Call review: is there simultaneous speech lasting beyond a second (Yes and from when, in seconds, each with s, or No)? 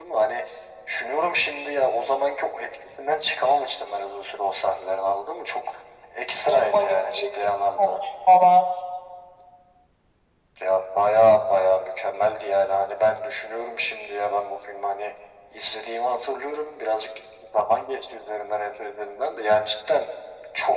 Yes, from 6.5 s